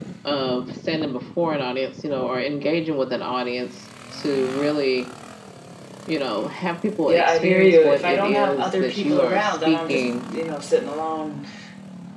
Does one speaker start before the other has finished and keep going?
Yes, from 7.0 s

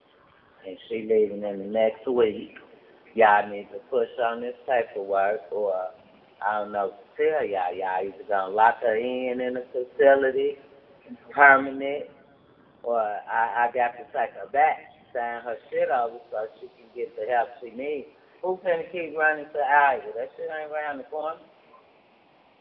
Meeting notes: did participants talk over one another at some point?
No

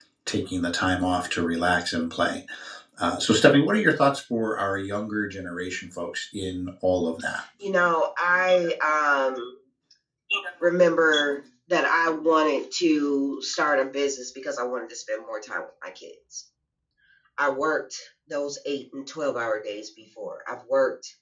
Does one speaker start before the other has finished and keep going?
No

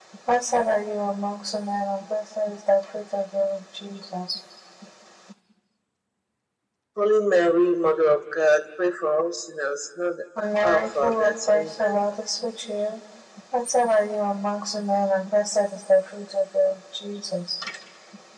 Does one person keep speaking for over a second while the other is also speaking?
Yes, from 10.6 s

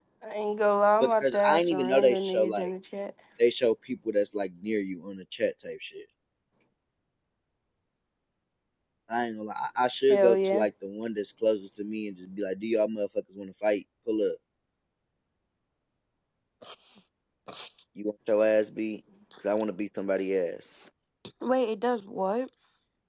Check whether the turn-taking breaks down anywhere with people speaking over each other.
Yes, from 1.0 s

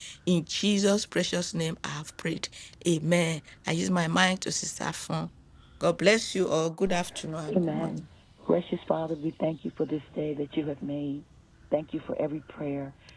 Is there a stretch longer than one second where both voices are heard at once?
No

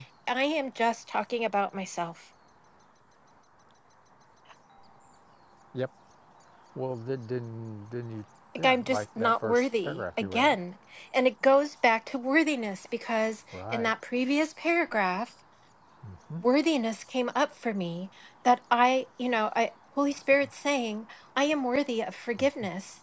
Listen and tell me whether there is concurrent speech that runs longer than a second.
Yes, from 8.6 s

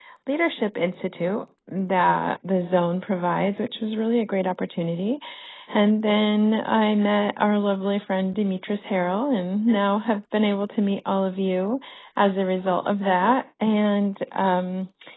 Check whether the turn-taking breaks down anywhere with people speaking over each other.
No

